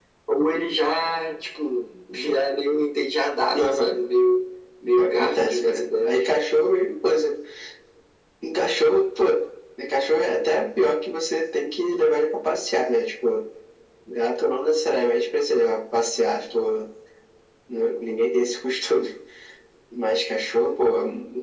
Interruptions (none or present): present